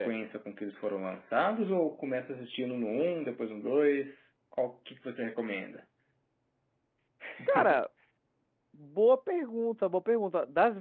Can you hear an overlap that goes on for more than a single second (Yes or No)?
No